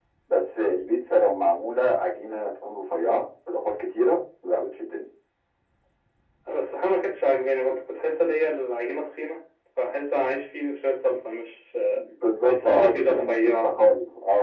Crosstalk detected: Yes, from 12.5 s

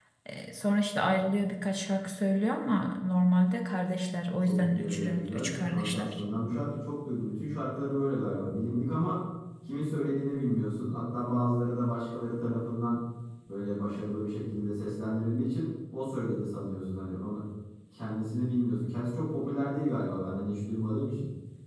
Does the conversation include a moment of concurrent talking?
Yes, from 4.5 s

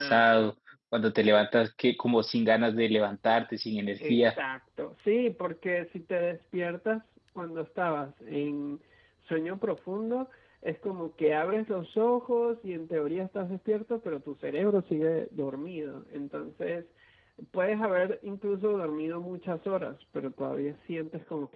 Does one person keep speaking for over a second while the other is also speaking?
No

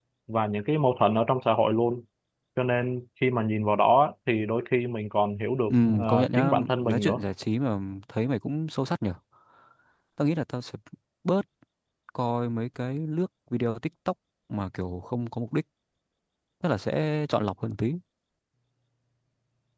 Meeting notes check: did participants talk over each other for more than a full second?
Yes, from 5.7 s

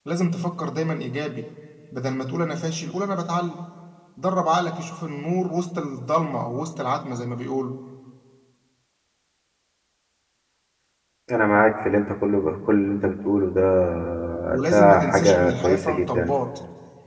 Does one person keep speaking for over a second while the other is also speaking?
Yes, from 14.7 s

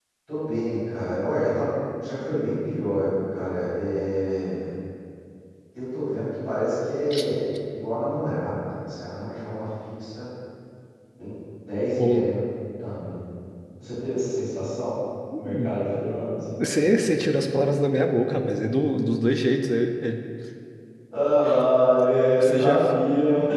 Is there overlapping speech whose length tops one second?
No

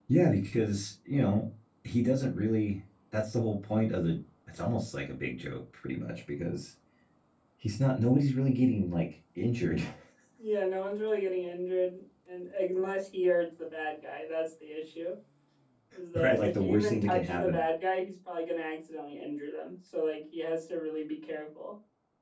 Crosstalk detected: Yes, from 16.2 s

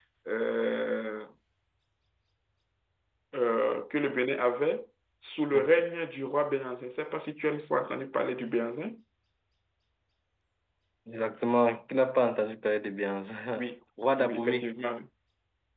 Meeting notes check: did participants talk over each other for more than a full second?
No

